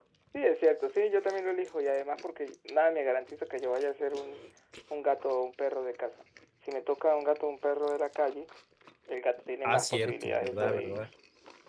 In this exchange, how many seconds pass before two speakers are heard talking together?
9.6 s

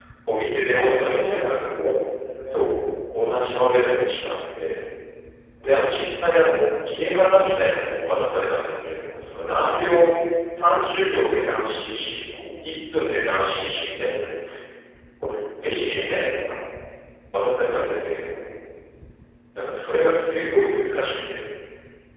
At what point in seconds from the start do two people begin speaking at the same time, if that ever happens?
0.7 s

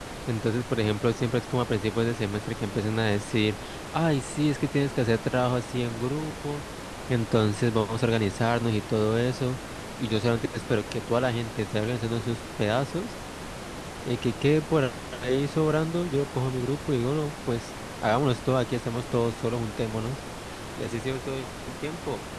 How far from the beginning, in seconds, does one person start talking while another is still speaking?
none

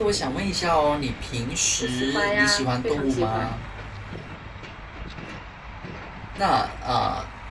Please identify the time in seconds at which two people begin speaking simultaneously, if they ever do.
1.8 s

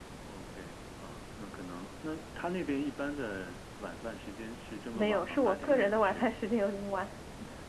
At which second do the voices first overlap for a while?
4.9 s

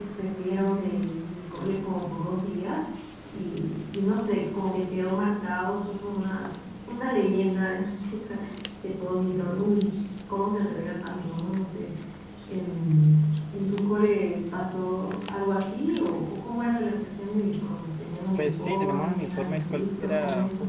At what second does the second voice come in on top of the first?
18.4 s

